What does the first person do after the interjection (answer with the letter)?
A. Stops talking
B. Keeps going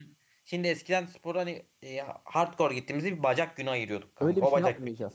A